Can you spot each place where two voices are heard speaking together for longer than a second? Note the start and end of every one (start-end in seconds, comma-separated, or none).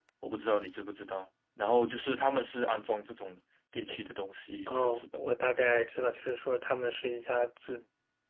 none